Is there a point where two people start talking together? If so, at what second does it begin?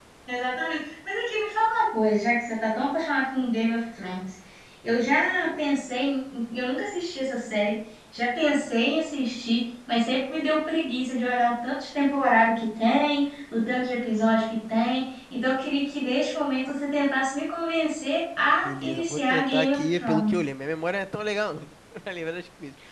18.6 s

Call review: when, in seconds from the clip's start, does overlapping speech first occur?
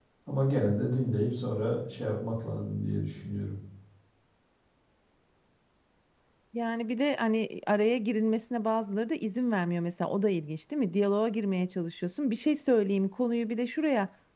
none

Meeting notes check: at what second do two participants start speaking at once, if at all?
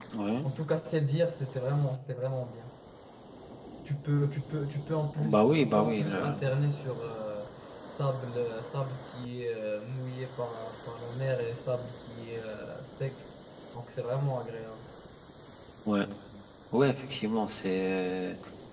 5.2 s

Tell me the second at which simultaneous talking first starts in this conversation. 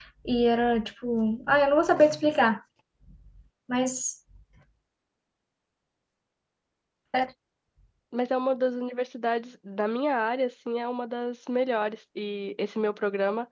none

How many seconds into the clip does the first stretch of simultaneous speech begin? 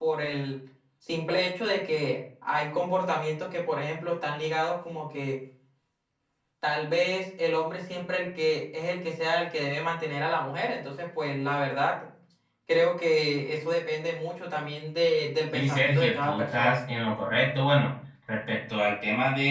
15.5 s

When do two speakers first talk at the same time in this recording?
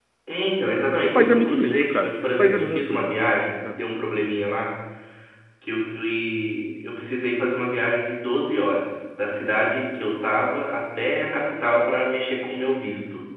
1.0 s

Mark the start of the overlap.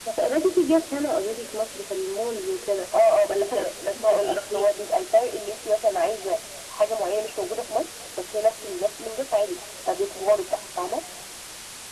3.3 s

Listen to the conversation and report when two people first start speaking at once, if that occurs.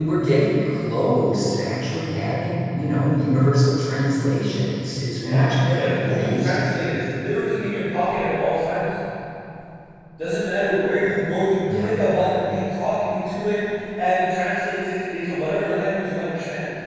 5.0 s

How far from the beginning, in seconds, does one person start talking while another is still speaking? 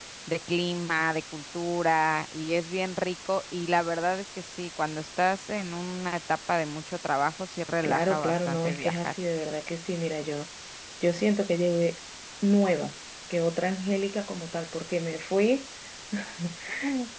7.8 s

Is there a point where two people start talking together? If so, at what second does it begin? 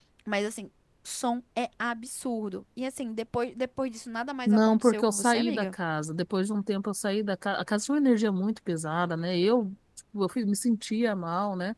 4.5 s

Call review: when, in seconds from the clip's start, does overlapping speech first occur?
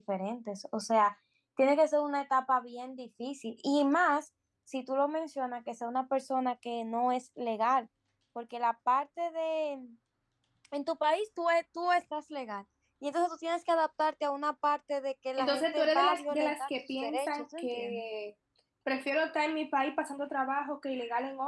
15.4 s

